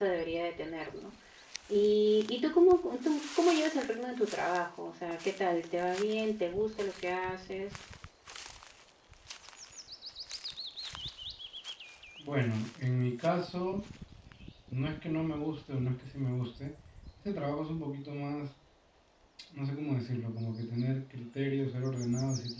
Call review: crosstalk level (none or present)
none